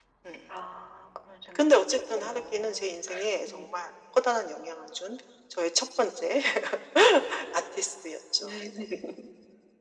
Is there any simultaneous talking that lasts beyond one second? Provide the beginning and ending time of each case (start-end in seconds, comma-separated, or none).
1.6-2.9